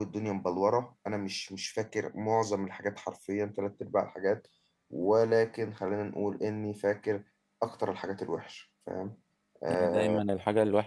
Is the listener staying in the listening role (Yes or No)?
No